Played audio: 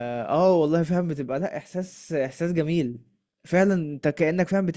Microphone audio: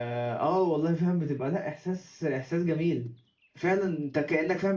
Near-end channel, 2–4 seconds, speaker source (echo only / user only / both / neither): echo only